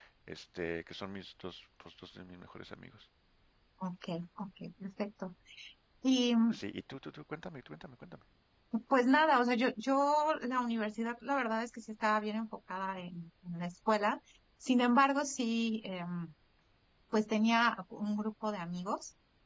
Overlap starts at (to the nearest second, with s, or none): none